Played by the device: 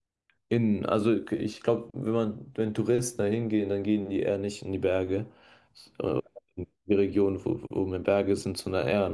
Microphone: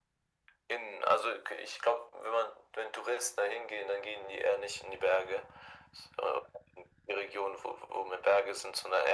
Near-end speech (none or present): none